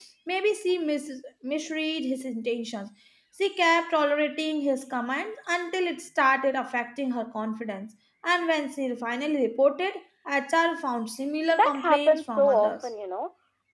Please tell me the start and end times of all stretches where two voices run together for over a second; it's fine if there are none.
11.5-12.9

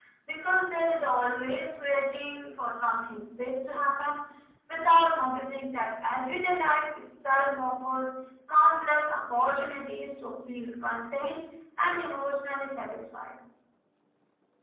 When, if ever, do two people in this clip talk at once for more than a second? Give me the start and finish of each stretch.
none

